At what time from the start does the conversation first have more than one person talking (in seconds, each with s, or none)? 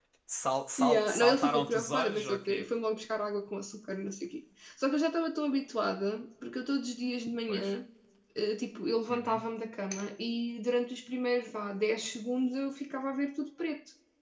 0.8 s